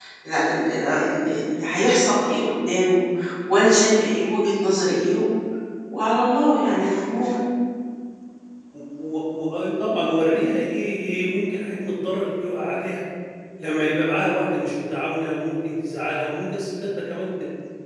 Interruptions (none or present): none